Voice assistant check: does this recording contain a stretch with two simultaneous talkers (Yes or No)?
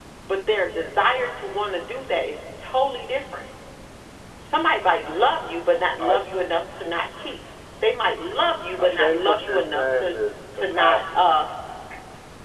Yes